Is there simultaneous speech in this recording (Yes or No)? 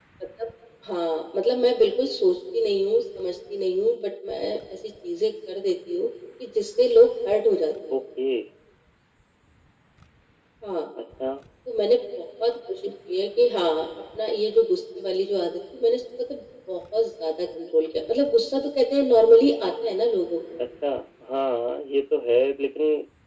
No